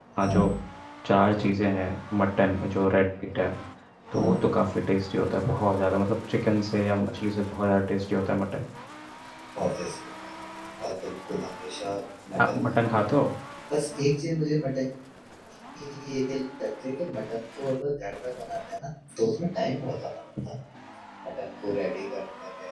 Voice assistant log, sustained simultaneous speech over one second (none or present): none